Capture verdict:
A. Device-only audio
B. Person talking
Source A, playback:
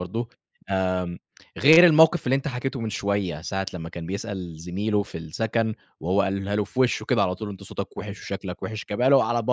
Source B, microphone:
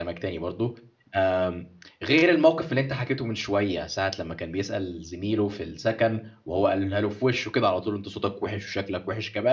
A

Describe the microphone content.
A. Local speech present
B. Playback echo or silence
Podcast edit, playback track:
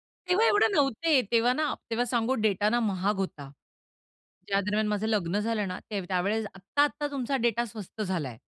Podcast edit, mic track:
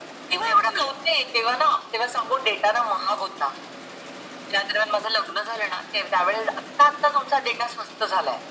B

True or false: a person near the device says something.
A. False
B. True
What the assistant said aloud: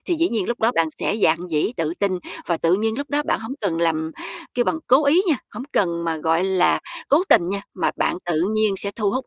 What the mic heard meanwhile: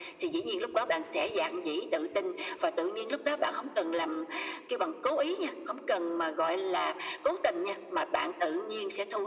A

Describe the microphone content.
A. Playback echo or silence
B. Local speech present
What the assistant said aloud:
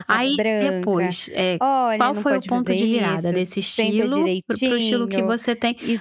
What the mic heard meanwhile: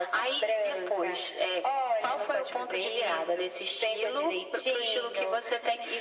A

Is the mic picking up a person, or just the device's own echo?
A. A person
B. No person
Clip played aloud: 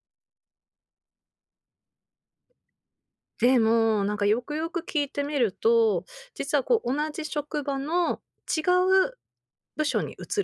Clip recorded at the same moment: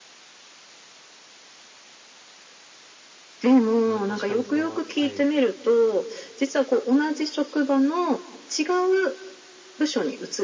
A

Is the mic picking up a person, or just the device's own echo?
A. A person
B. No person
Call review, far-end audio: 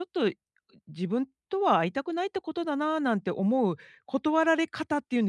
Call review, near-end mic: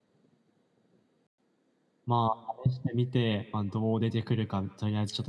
A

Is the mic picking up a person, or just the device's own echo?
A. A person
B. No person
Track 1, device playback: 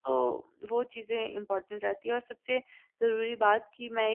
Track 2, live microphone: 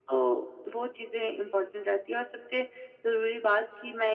B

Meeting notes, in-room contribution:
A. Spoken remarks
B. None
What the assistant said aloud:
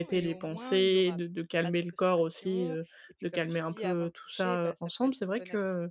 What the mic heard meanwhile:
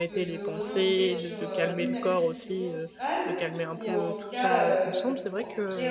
A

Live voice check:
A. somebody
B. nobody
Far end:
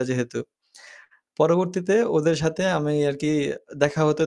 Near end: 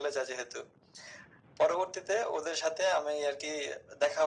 B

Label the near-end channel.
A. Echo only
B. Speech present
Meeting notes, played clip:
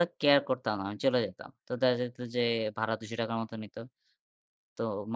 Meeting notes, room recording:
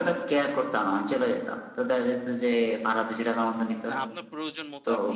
B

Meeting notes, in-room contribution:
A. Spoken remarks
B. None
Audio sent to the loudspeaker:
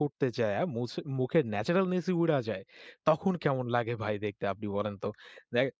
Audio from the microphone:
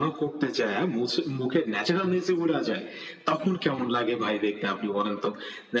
B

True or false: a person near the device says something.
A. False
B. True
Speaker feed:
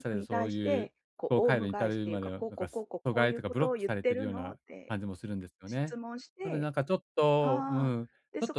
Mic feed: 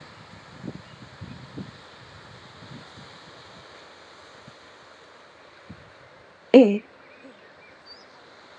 B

